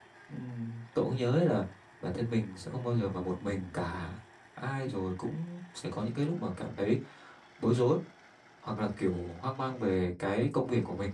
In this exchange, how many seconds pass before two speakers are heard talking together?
none

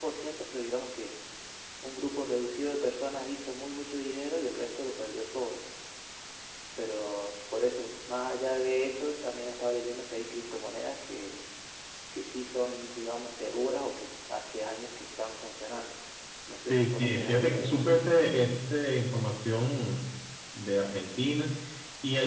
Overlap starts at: 16.6 s

